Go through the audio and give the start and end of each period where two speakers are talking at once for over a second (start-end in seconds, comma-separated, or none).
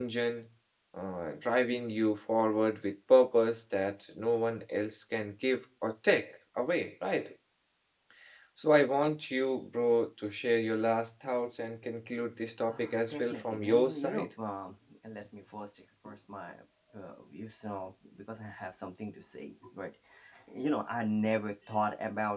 12.7-14.3